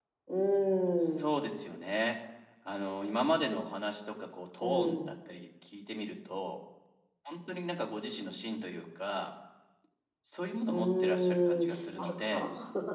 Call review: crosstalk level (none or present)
present